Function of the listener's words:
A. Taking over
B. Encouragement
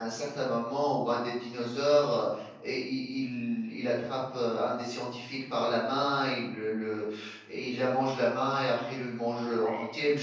B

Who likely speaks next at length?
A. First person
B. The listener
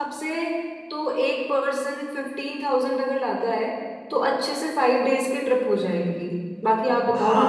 B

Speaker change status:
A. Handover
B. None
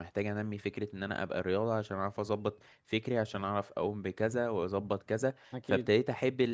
B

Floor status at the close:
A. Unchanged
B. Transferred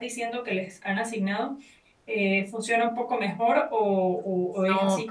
B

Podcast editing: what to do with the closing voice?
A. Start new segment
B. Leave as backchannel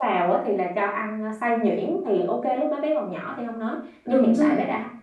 B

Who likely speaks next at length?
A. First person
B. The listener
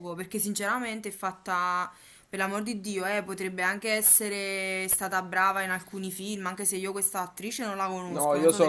B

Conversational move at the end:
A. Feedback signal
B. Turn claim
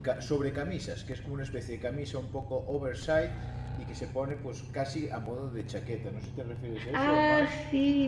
B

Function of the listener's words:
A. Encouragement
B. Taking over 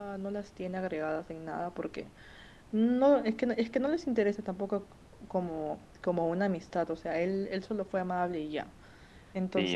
B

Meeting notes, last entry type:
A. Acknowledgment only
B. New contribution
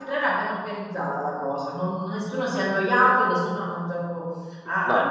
A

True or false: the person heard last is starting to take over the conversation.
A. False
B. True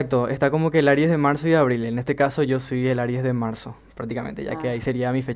A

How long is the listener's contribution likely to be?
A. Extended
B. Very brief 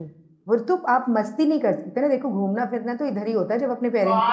A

